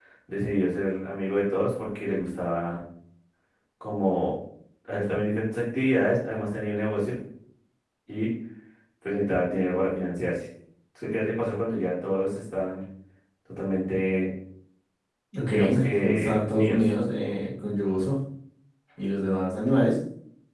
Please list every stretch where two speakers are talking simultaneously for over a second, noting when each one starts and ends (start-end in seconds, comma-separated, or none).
15.5-16.8